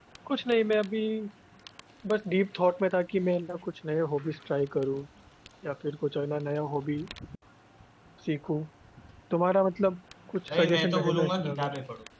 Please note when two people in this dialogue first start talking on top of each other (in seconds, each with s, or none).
10.5 s